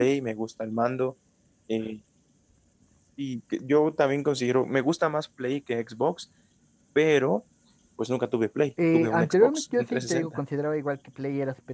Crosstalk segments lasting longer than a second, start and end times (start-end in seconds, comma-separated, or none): 8.9-10.4